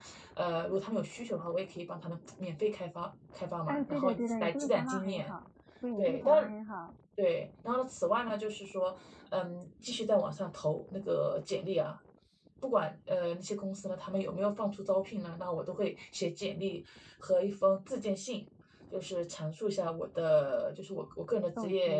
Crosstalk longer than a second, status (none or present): present